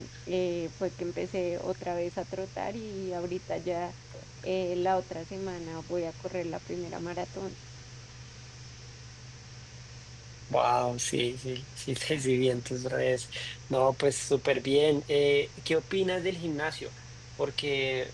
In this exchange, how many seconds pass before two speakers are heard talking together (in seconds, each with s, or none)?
none